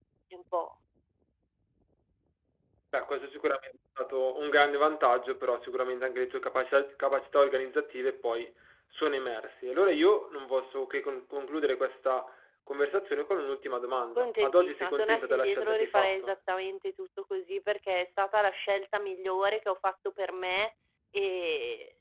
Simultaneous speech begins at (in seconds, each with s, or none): 14.2 s